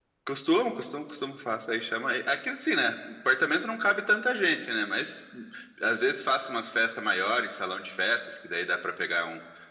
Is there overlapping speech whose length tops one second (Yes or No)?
No